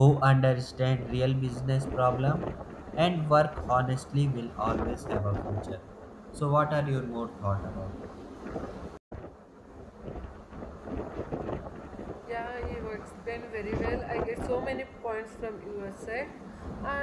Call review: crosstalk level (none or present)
none